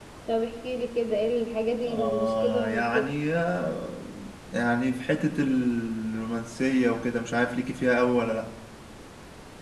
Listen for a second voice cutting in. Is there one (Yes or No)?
Yes